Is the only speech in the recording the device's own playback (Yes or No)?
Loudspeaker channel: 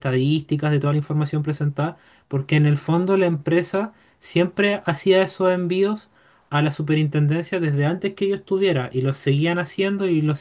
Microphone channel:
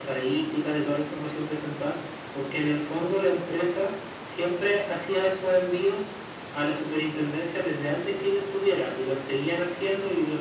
Yes